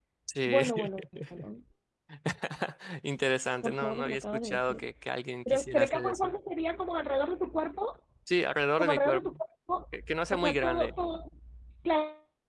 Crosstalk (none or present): present